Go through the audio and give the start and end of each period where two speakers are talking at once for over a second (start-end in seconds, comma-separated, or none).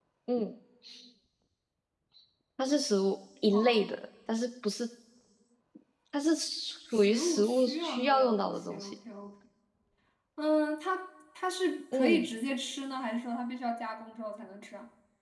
6.9-8.9